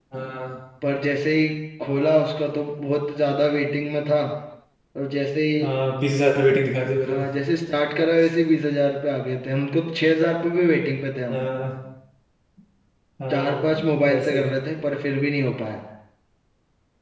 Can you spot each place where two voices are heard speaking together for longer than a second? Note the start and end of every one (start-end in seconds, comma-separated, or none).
none